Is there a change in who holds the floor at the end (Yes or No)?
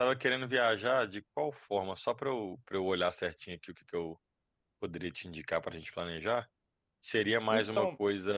No